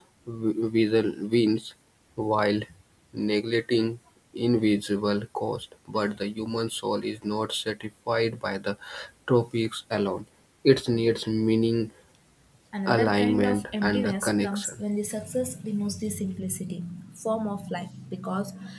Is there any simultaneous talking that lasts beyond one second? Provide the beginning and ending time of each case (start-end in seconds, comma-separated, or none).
12.9-14.8